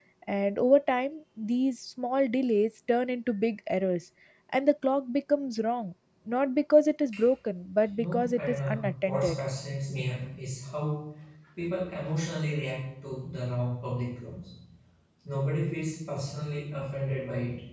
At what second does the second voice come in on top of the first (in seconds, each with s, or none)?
8.0 s